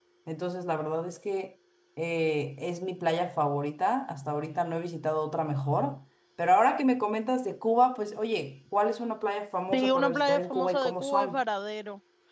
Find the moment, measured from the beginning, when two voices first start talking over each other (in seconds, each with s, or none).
9.7 s